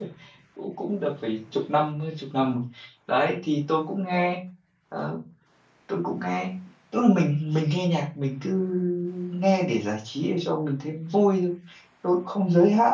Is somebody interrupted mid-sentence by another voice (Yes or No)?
No